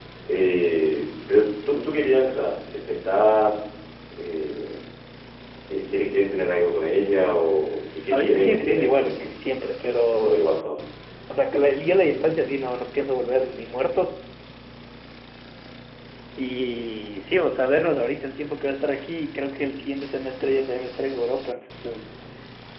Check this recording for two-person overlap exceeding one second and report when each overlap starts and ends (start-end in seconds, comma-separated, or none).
8.1-9.3